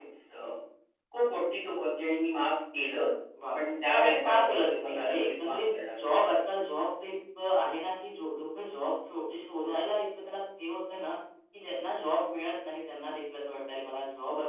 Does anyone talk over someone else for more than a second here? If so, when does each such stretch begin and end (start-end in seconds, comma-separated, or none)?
3.5-6.1